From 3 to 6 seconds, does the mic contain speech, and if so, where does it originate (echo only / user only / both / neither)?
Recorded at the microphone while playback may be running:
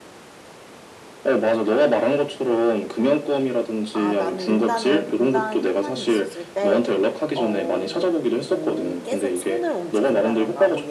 both